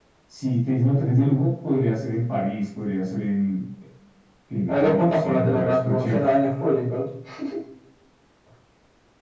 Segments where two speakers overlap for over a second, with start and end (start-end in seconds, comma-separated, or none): 4.7-6.3